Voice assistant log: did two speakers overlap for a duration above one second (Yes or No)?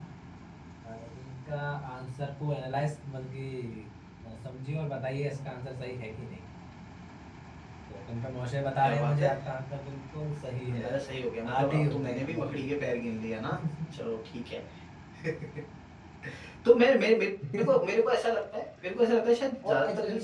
Yes